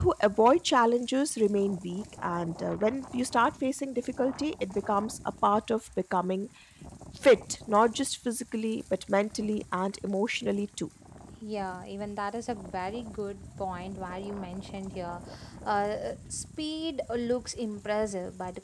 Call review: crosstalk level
none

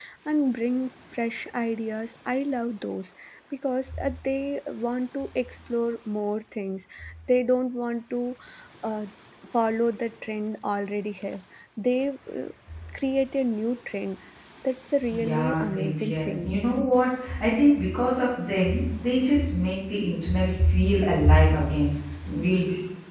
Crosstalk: present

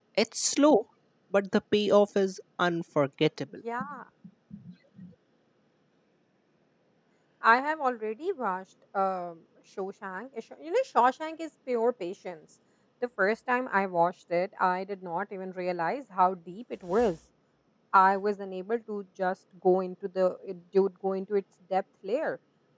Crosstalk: none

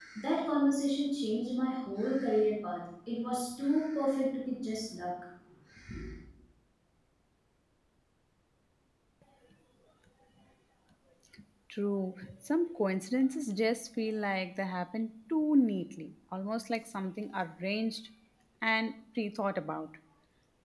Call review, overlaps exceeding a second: none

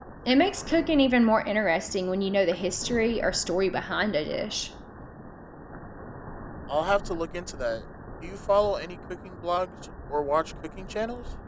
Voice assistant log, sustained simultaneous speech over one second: none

